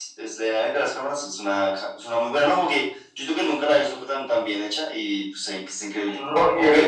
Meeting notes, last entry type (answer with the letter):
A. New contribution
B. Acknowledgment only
A